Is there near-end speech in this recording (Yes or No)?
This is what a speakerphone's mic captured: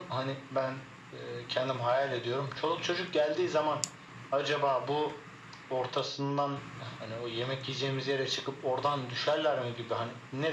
No